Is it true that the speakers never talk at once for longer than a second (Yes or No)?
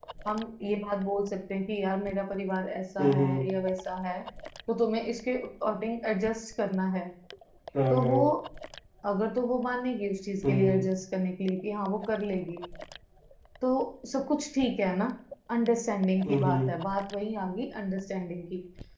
Yes